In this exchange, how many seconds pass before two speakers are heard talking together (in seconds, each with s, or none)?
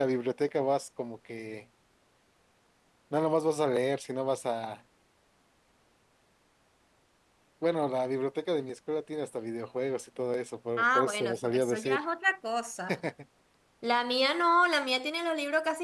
10.8 s